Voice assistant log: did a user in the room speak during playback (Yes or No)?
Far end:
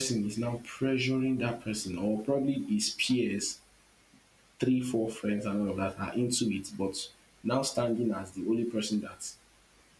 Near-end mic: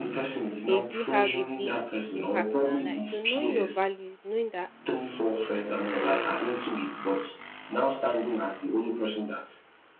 Yes